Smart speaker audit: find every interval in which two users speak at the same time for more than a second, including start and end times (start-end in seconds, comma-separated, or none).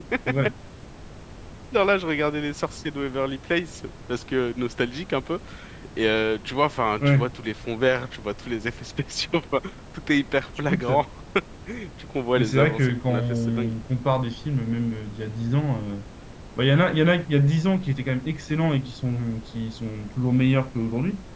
12.4-13.8